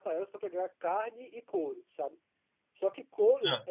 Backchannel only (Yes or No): Yes